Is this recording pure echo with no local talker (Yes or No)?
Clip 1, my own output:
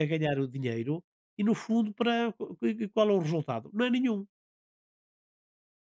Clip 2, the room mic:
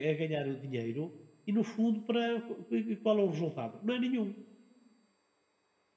Yes